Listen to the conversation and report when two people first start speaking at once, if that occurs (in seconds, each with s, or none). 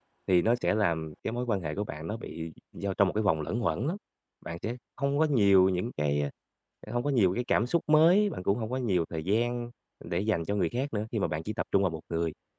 none